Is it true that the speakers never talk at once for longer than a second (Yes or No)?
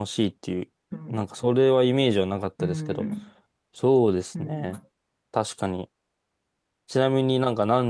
Yes